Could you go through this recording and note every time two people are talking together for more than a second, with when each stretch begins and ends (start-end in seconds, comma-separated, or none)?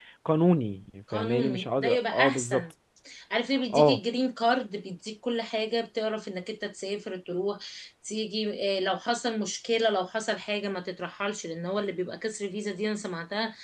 1.1-2.6